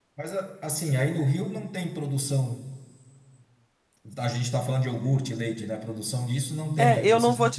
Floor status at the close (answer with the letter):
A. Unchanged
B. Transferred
B